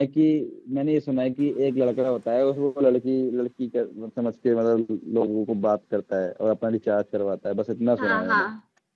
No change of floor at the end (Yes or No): No